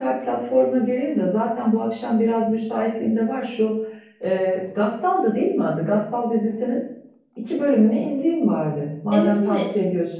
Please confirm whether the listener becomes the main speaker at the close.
Yes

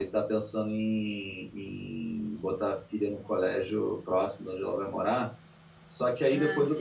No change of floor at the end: Yes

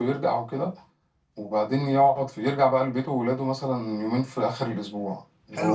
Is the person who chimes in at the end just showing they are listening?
No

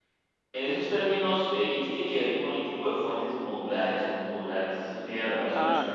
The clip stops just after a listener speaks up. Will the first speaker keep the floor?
No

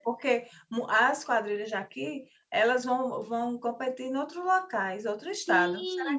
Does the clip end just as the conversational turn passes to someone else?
Yes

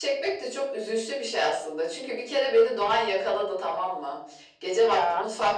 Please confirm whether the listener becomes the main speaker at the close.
No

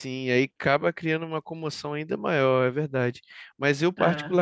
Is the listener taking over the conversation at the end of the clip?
No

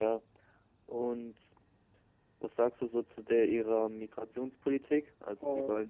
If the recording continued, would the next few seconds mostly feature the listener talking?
No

